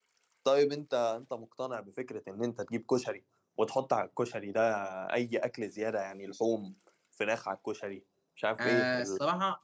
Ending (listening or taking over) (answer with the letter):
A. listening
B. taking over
B